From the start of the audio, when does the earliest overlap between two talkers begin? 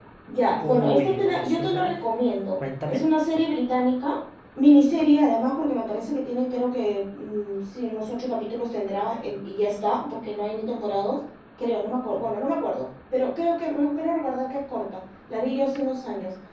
0.6 s

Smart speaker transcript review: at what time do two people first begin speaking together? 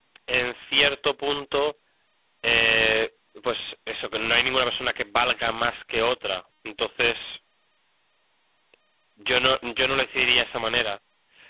none

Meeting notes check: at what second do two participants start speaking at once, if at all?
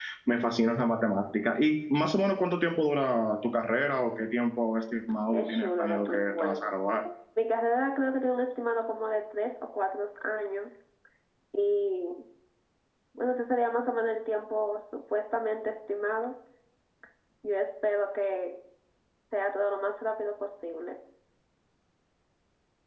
5.3 s

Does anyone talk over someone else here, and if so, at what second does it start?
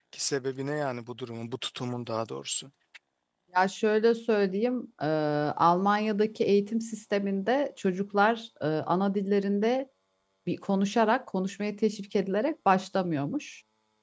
none

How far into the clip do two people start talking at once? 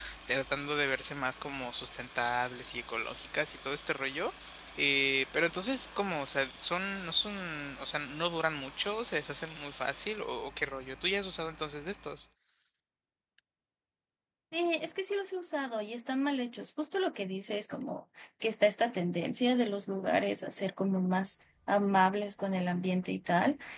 none

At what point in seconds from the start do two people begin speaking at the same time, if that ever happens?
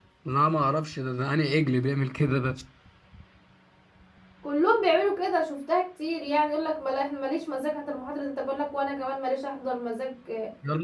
none

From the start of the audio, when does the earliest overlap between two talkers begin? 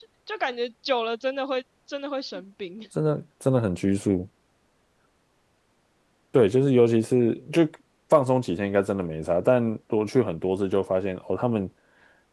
none

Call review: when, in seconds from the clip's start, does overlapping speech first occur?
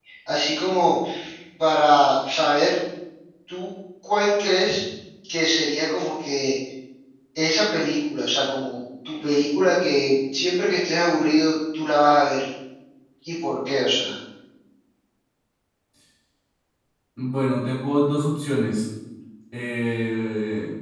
none

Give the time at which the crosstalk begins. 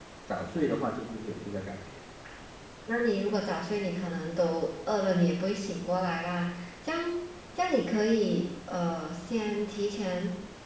none

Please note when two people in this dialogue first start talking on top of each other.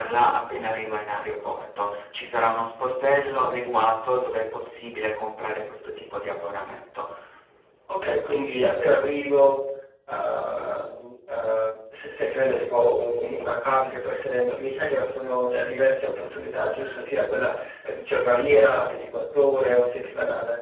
none

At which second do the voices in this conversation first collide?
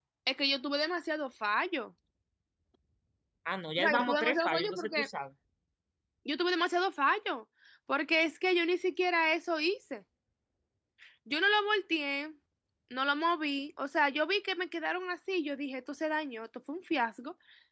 3.8 s

